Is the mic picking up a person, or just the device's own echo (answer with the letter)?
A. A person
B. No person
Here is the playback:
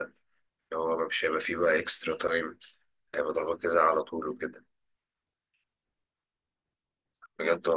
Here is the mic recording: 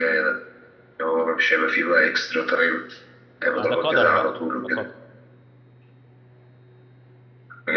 A